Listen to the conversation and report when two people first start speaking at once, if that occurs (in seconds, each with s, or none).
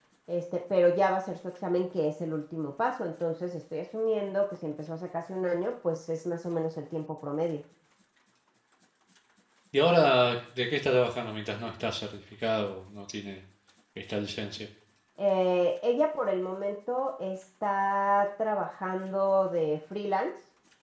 none